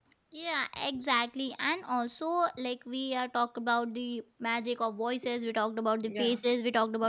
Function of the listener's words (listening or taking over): listening